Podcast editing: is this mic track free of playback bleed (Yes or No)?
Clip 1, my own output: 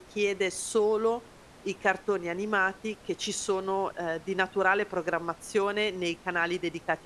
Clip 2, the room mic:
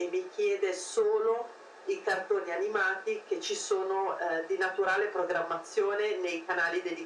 No